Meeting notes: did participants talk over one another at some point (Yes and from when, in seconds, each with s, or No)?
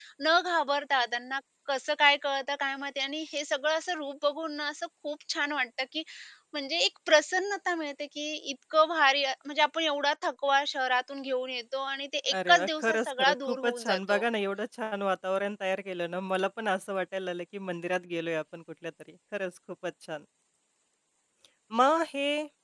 Yes, from 12.3 s